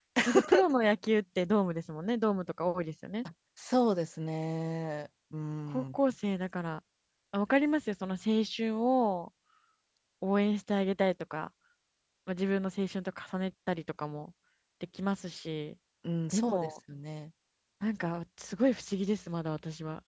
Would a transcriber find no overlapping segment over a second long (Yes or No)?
Yes